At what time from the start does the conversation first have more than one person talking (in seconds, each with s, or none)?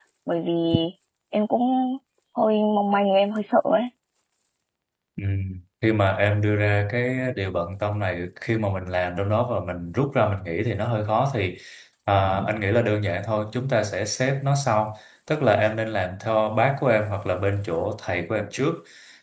none